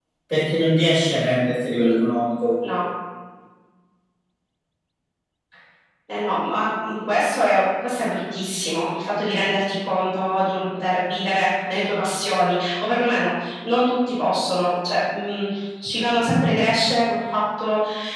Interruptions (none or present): none